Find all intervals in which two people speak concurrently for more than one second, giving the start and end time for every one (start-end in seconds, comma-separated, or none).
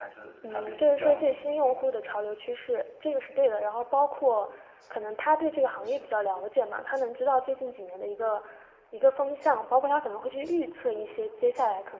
0.5-1.8